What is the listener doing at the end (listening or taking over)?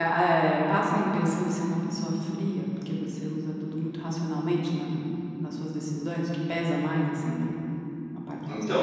taking over